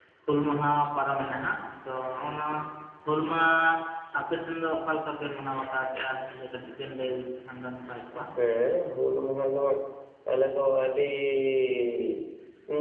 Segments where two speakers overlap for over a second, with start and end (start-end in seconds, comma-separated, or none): none